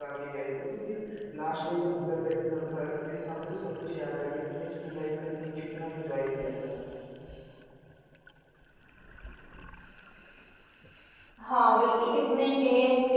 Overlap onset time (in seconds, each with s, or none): none